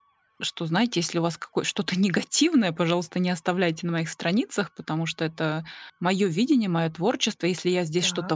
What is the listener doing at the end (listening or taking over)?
listening